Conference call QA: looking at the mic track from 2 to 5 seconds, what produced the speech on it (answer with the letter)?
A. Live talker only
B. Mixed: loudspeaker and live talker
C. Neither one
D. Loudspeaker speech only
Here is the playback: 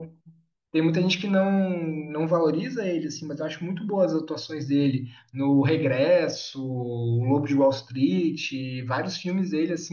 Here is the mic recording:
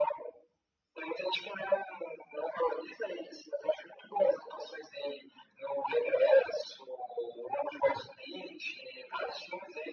D